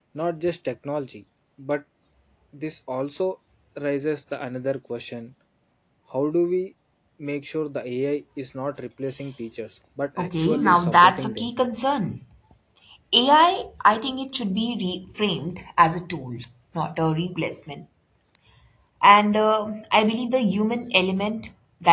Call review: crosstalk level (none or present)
present